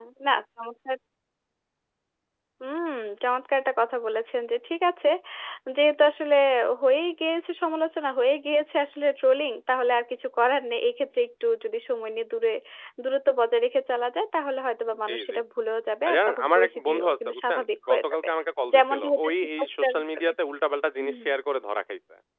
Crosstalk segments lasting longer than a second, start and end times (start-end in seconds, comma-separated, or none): 16.1-18.3, 18.7-20.0